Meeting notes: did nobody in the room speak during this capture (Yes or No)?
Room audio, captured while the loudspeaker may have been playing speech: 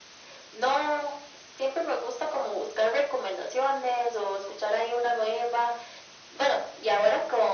Yes